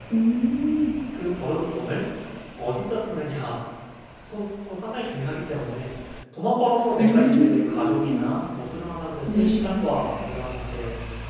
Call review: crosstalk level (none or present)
present